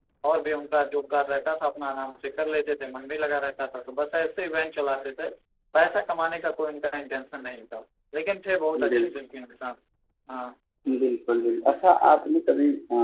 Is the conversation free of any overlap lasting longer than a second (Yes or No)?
Yes